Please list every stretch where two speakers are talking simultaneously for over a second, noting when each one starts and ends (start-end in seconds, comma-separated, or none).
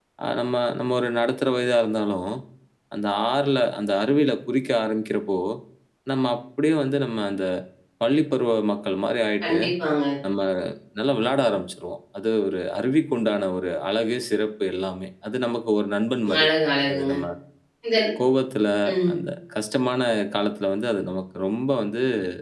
none